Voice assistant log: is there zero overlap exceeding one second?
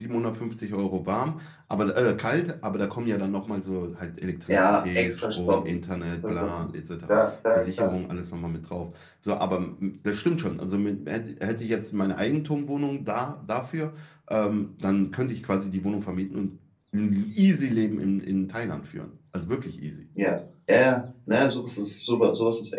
No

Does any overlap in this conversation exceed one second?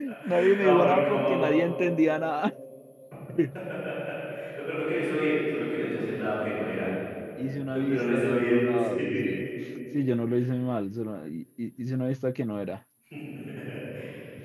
Yes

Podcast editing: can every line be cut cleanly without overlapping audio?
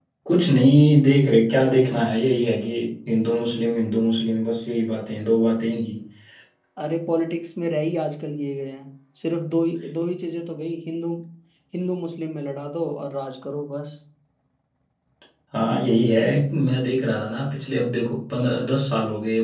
Yes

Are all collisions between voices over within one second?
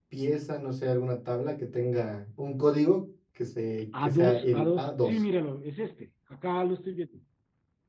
No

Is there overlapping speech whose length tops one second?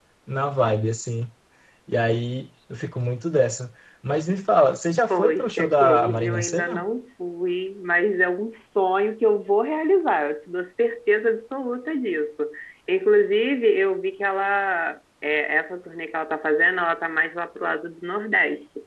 Yes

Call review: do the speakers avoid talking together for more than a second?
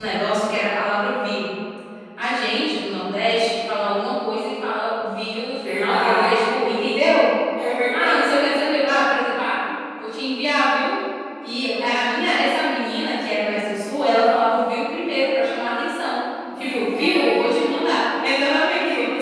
No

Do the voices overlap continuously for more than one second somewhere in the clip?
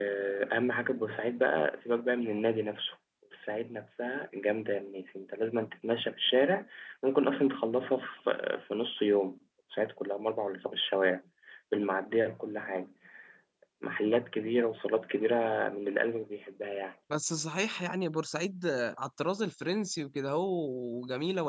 No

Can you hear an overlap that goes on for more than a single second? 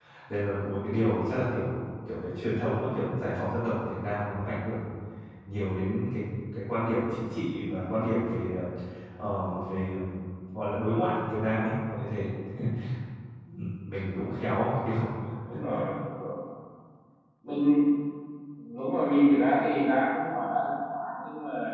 No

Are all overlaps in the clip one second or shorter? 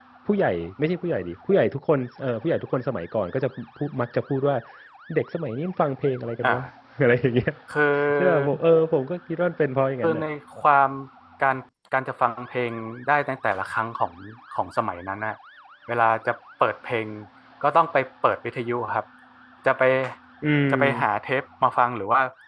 Yes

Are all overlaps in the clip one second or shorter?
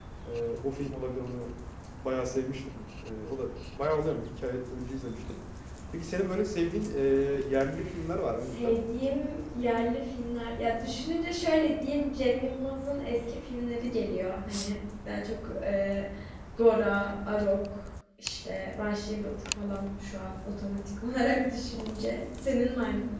Yes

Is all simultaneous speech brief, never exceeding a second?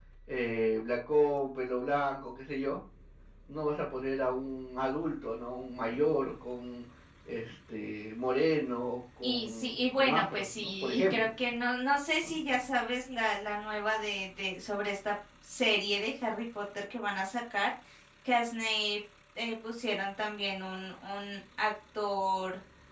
No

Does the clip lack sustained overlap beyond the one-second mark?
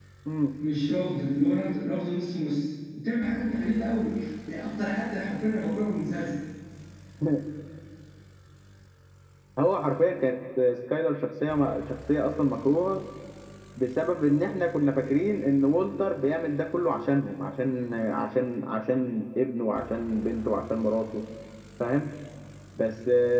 Yes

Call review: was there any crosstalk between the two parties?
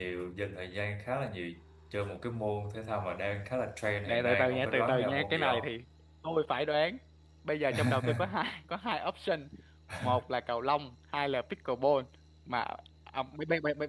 Yes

